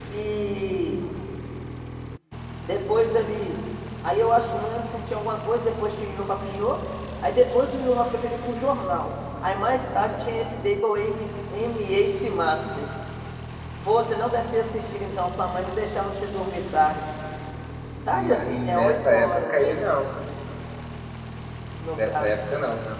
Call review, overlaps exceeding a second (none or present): present